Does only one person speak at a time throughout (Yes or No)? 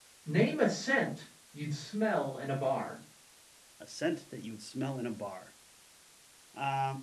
Yes